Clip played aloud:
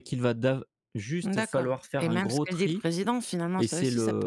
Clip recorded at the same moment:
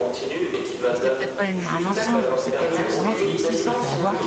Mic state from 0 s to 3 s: both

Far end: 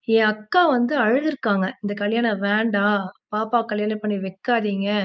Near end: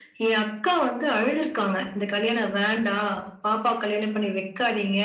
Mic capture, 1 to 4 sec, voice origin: echo only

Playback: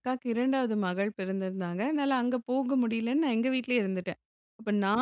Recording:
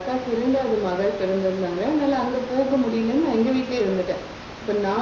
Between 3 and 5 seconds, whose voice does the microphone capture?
echo only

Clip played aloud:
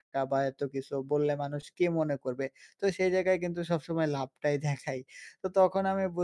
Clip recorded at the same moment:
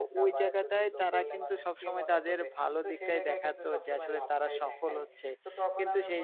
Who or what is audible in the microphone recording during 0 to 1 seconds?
both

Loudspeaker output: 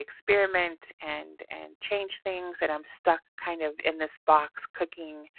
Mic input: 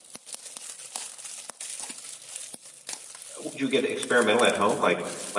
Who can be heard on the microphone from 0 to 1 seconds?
neither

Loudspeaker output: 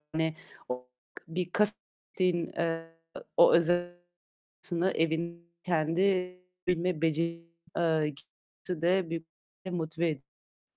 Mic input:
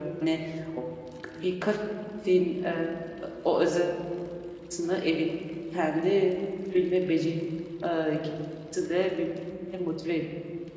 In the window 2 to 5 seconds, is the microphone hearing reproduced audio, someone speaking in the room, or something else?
echo only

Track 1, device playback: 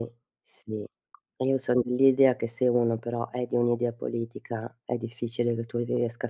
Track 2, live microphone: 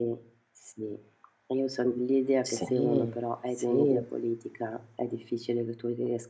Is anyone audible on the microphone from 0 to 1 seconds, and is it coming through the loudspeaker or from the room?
echo only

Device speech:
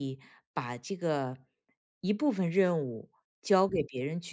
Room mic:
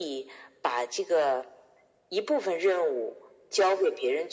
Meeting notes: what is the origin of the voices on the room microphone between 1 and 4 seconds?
echo only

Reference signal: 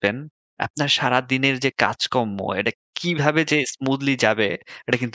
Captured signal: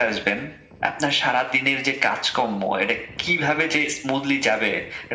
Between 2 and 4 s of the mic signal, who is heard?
echo only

